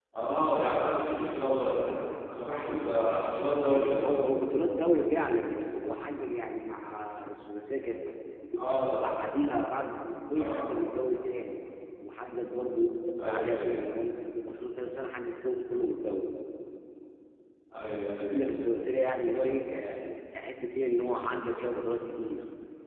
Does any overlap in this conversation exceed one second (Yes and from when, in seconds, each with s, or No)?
No